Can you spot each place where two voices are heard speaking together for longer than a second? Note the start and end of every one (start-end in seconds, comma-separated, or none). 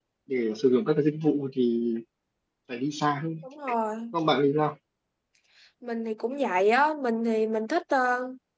none